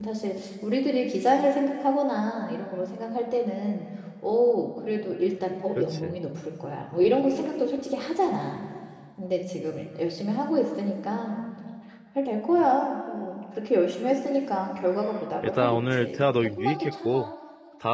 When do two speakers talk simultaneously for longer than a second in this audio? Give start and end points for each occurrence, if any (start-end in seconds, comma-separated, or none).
15.4-17.3